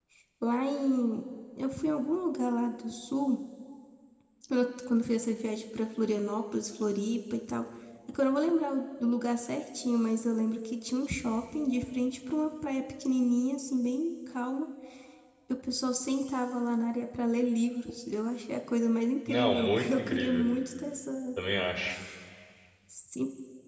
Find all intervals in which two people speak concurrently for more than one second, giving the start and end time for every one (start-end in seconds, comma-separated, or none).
19.3-20.5